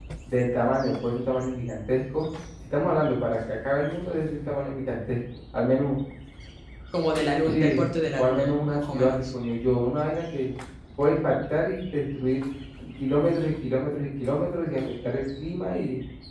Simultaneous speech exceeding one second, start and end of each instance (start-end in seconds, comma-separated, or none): 7.5-9.1